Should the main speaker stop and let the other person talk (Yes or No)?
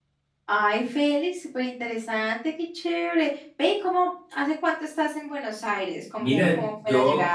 Yes